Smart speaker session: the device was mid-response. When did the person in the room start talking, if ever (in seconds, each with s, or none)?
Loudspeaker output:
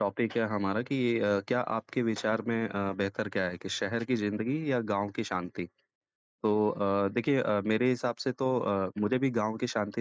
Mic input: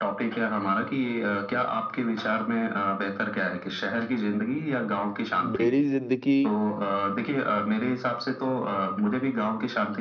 5.4 s